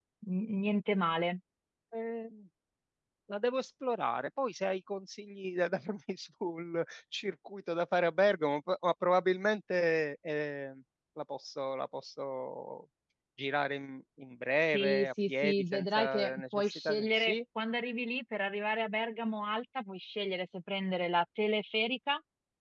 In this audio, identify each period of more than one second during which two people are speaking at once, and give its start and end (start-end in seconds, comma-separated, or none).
14.7-17.4